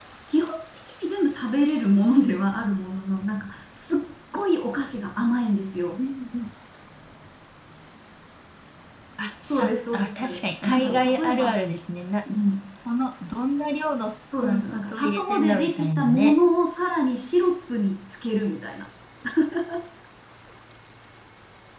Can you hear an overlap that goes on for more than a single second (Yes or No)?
Yes